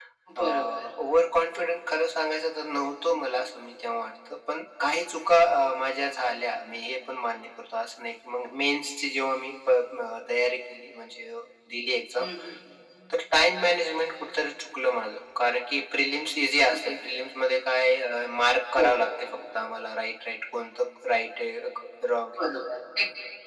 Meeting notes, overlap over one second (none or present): none